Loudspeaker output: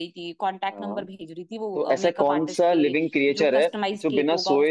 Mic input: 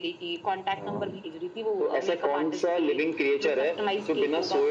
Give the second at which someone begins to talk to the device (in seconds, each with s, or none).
none